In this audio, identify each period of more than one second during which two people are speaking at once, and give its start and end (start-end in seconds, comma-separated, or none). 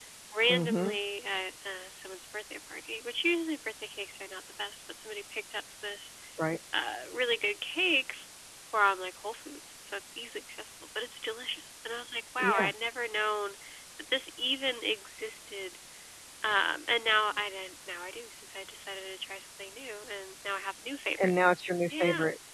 none